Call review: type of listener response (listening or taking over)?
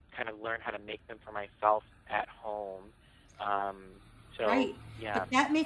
taking over